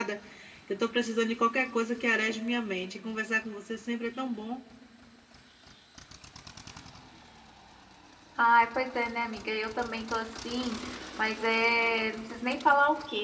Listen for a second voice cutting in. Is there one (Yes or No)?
No